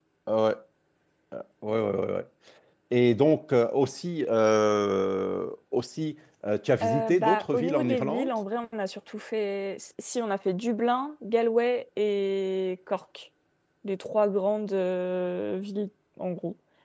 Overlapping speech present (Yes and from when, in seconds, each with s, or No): Yes, from 6.8 s